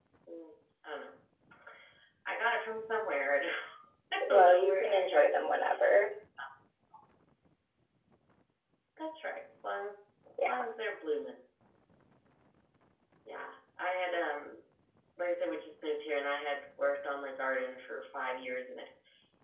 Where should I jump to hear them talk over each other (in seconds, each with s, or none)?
4.2 s